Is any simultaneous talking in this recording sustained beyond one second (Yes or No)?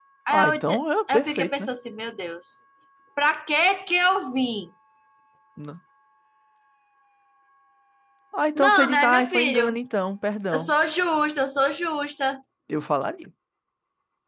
Yes